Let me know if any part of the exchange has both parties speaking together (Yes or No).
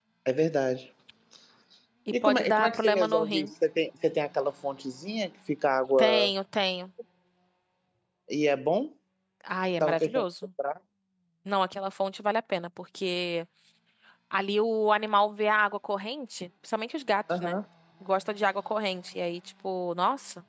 Yes